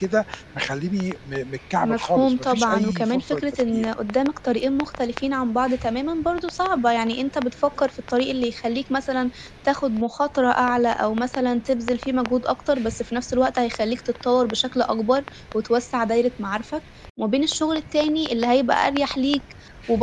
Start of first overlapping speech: 1.8 s

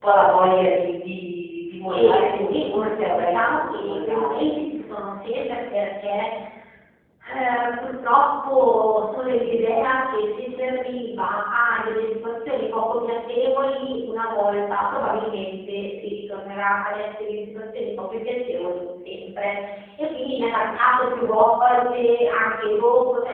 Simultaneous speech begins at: 1.9 s

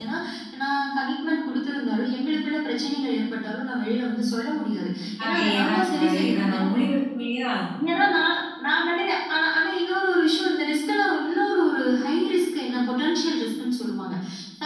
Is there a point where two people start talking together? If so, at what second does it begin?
5.2 s

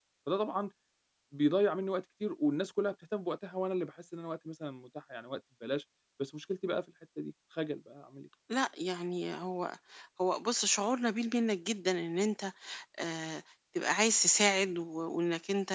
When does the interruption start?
none

